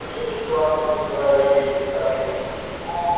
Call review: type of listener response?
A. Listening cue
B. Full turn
B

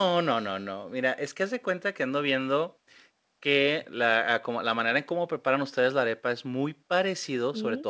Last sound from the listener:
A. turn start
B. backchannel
B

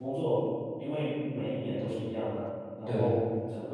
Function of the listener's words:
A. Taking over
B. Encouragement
B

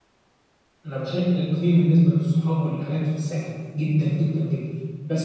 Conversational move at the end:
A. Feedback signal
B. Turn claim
A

